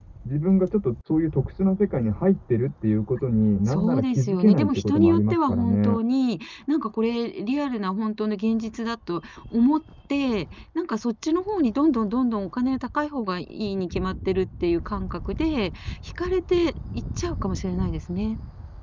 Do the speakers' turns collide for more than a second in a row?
Yes, from 3.7 s

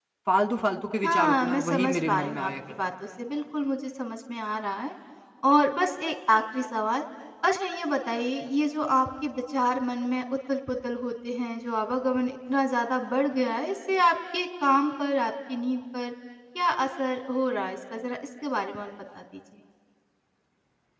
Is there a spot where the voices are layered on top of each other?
Yes, from 1.0 s

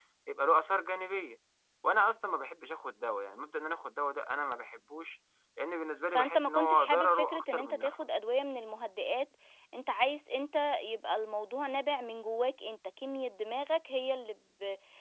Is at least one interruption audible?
Yes, from 6.1 s

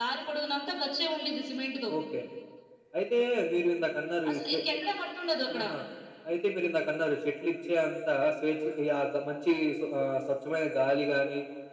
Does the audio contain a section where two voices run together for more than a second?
No

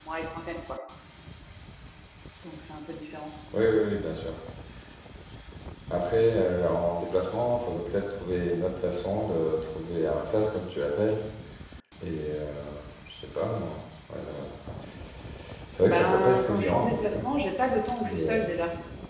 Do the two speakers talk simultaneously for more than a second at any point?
Yes, from 15.8 s

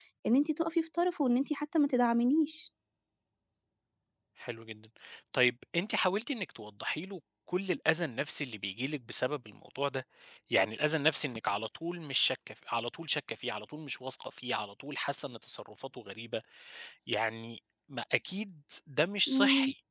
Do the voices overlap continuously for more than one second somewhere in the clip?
No

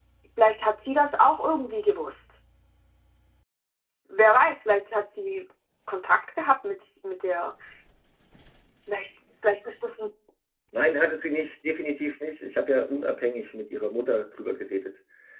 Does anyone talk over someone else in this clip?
No

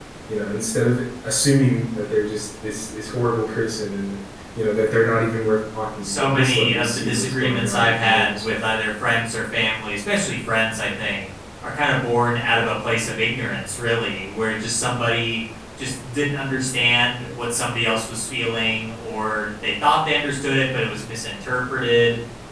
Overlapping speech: Yes, from 6.0 s

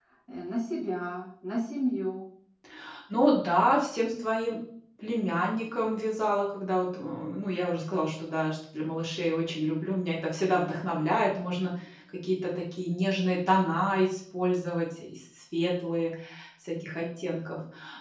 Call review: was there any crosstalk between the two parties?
No

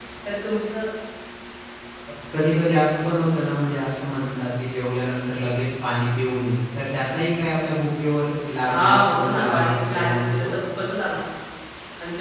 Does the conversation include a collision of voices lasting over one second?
Yes, from 8.6 s

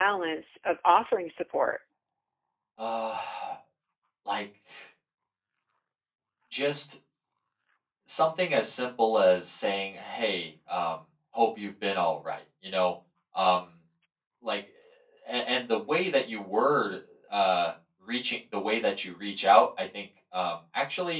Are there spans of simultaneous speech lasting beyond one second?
No

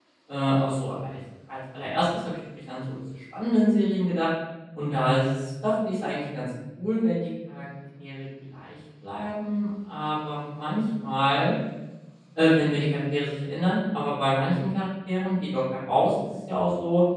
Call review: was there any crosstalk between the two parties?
No

